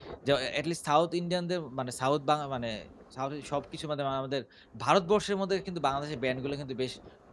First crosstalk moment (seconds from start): none

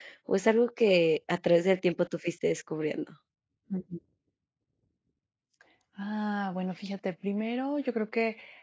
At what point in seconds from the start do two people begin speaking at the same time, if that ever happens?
none

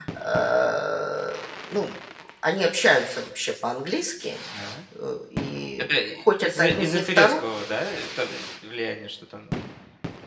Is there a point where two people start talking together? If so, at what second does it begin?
6 s

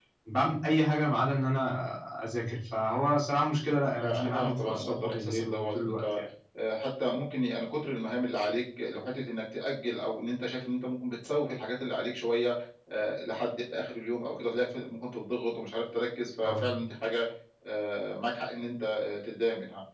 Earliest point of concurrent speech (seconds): 4 s

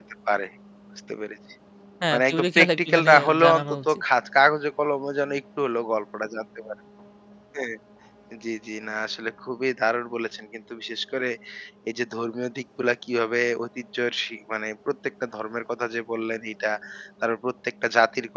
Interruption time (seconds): 2 s

